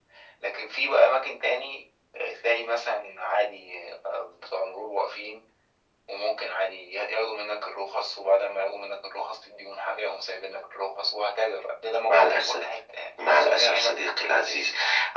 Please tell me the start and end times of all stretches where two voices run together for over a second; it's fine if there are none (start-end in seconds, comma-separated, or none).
13.2-14.6